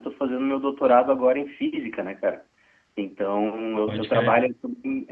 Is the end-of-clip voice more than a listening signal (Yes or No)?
No